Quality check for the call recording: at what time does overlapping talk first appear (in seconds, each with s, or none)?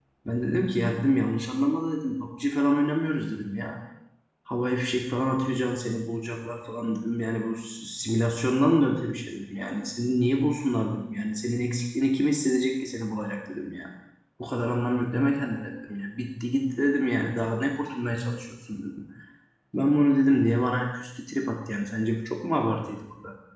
none